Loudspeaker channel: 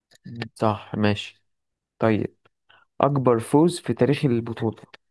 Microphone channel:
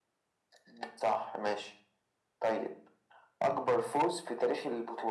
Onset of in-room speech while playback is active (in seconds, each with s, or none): none